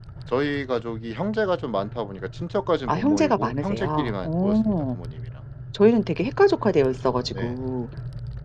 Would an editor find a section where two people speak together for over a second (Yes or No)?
Yes